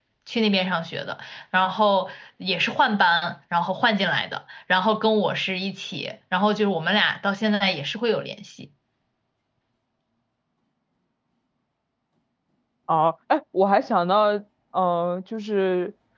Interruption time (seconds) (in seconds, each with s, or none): none